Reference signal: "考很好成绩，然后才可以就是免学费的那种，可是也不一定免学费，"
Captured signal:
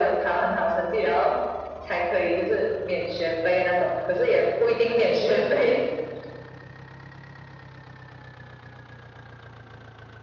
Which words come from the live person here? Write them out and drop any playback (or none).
none